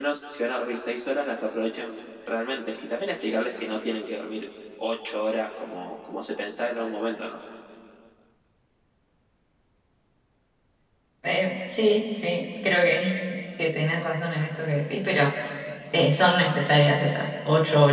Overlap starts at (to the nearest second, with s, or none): none